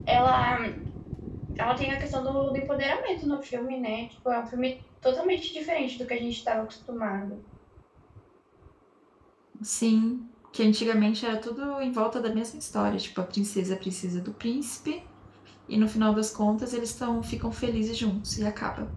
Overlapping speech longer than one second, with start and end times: none

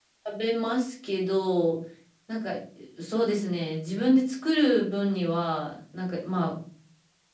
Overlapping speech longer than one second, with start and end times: none

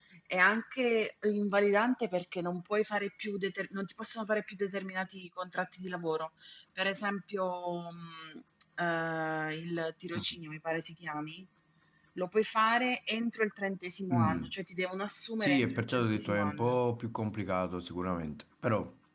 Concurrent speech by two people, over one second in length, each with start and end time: 15.4-16.8

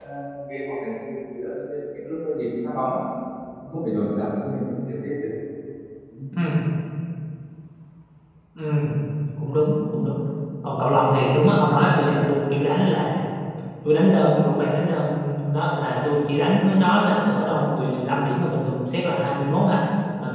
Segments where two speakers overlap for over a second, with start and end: none

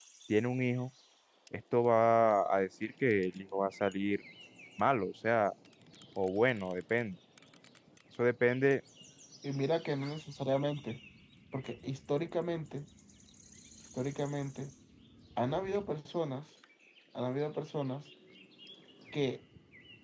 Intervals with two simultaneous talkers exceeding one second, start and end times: none

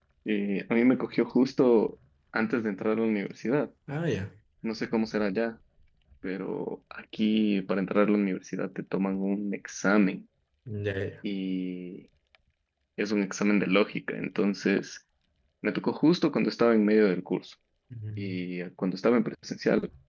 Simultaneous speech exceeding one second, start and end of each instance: none

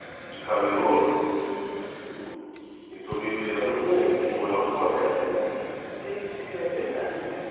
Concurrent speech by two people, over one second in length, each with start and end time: none

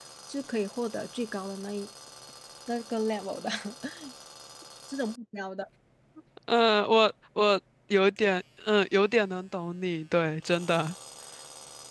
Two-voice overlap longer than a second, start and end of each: none

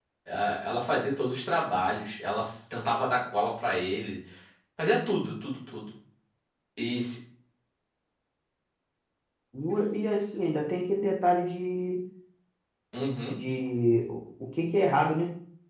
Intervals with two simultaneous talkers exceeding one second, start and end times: none

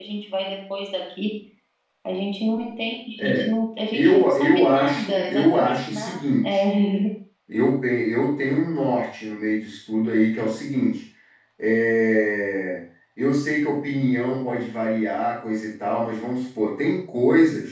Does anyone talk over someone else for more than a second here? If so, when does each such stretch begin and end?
3.9-6.6

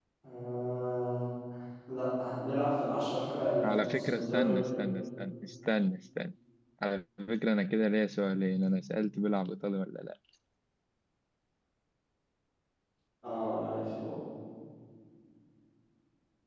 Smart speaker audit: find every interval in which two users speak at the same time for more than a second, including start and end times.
3.6-4.9

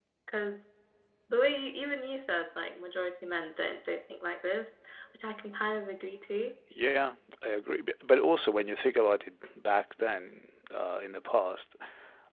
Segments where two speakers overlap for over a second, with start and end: none

